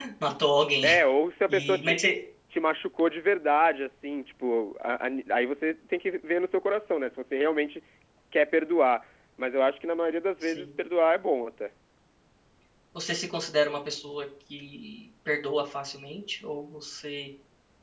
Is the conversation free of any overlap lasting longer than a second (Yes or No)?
Yes